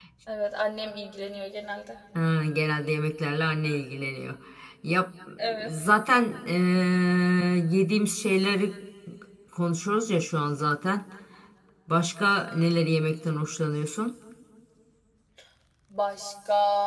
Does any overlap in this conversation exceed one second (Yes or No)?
No